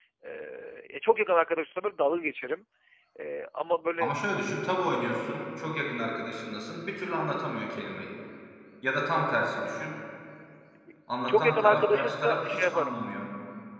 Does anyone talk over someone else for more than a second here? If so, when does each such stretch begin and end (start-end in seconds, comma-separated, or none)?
11.3-12.9